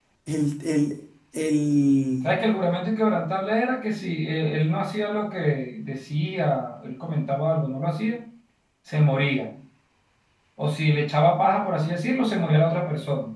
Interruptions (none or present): none